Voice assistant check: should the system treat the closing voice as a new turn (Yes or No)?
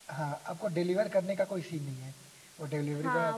Yes